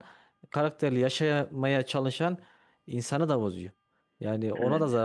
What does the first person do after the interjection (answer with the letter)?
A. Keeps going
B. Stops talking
A